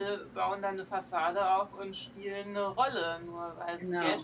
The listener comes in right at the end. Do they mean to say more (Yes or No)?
No